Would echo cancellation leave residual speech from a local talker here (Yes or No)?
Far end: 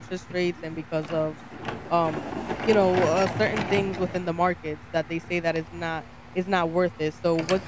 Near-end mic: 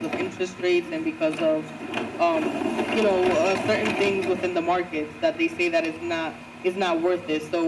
No